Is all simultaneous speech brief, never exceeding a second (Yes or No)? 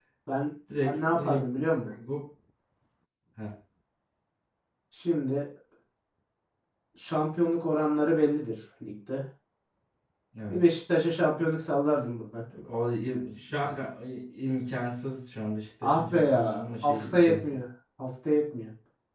No